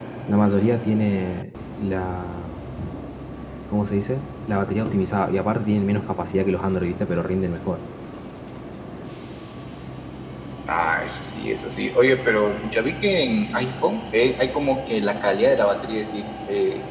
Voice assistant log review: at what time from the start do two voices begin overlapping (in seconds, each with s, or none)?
none